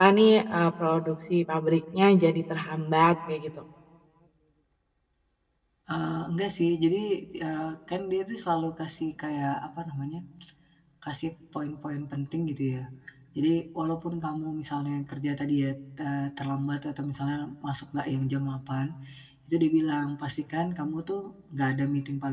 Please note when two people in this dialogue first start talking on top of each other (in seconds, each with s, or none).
none